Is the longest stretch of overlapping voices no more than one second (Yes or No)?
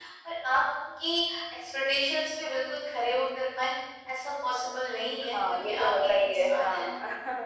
No